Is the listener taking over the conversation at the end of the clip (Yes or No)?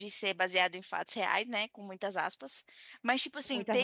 No